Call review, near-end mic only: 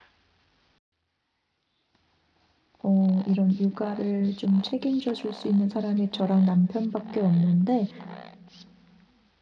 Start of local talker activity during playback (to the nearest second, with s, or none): 3 s